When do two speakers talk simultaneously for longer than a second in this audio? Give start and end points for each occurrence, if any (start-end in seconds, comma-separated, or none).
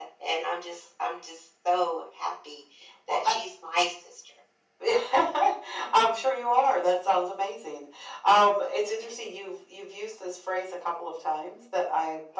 none